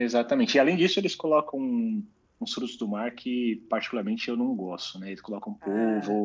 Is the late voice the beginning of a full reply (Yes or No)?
No